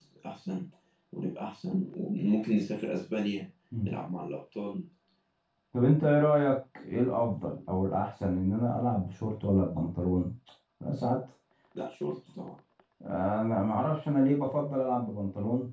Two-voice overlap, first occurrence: none

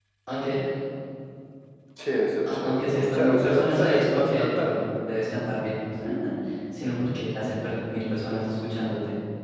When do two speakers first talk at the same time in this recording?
3 s

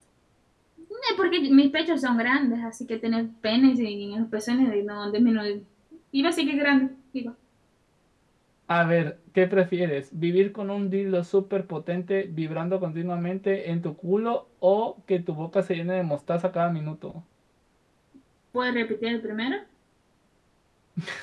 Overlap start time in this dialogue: none

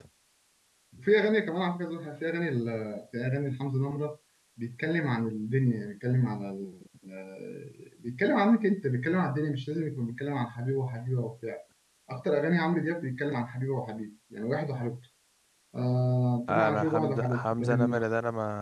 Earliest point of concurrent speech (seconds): 16 s

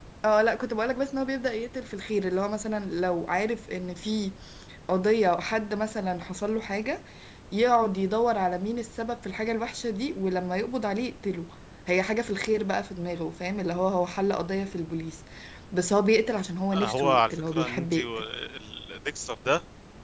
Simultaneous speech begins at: 17 s

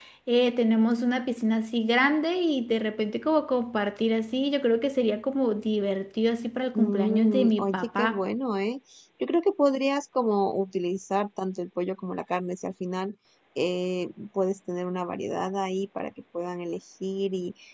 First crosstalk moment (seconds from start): 7 s

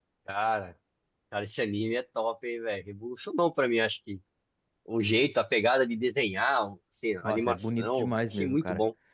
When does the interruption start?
7 s

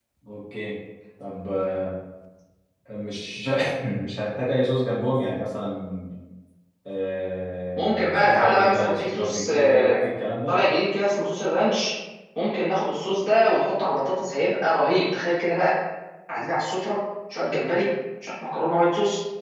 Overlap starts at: 8 s

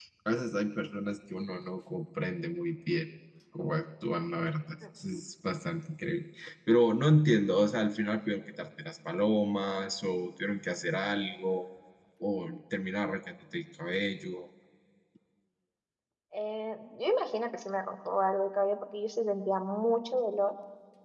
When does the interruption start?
none

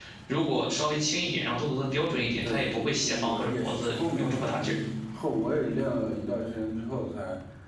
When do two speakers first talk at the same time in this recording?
2 s

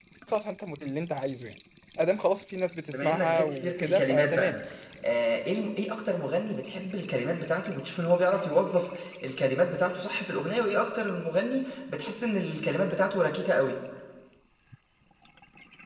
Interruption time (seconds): 3 s

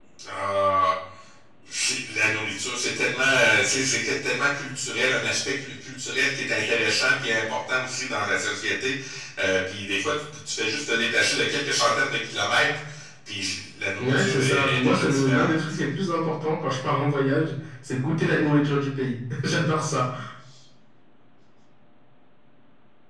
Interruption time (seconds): 14 s

